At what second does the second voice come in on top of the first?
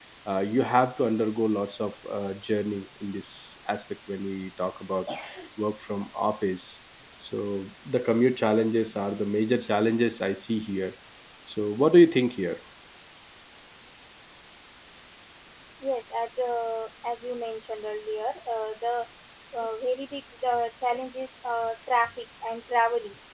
none

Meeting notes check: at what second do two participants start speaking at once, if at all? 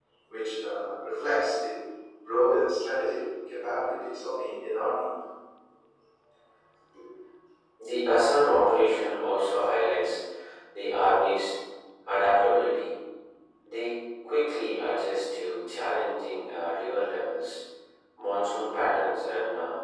none

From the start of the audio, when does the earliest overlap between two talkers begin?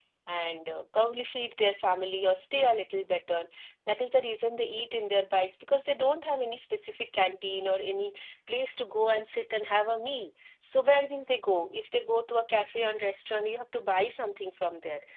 none

